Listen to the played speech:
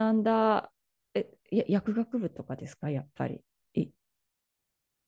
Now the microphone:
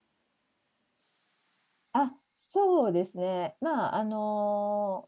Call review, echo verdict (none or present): none